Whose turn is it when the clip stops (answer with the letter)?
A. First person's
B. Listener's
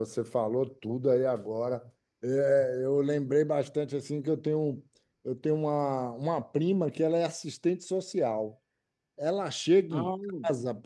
A